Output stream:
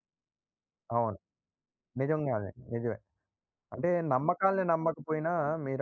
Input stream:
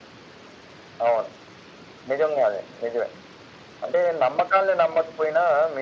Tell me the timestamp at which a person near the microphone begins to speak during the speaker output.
none

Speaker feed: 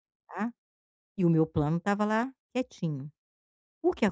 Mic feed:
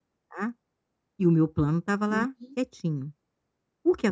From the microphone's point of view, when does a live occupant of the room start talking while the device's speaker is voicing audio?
2.1 s

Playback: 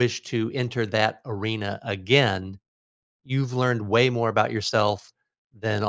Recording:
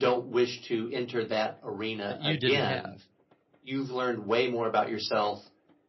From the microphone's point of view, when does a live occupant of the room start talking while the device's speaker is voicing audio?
2.1 s

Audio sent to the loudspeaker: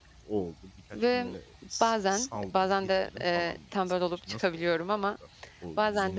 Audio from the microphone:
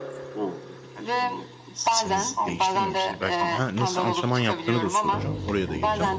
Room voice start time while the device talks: 1.9 s

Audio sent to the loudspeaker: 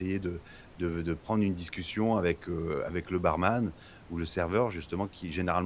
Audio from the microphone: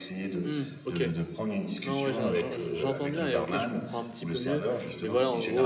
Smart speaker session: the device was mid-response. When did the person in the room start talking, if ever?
0.4 s

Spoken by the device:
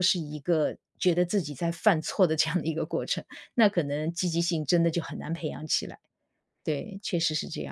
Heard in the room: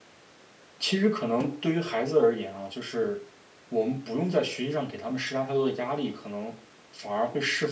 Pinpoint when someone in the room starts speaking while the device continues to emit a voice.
0.8 s

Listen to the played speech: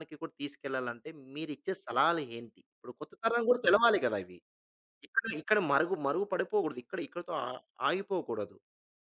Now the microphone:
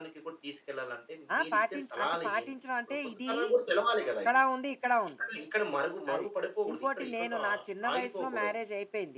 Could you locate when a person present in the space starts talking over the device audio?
1.4 s

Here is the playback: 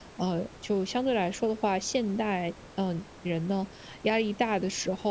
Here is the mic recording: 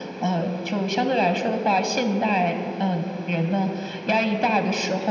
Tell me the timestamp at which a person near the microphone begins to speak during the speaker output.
none

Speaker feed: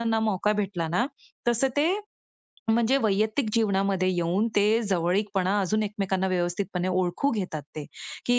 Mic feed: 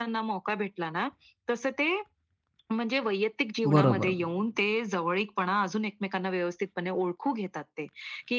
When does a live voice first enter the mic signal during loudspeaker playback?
3.7 s

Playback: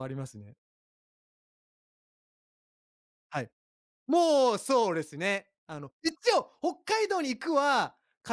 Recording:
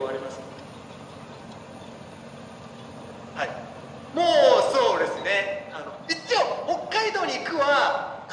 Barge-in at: none

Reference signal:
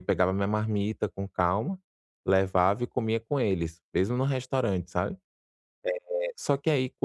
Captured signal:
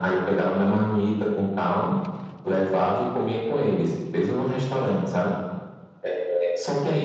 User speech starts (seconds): none

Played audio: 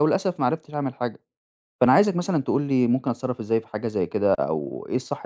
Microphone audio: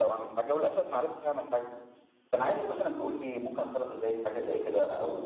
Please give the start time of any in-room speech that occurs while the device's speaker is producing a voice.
none

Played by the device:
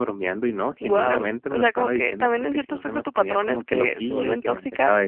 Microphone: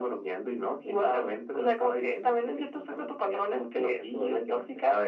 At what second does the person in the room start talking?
none

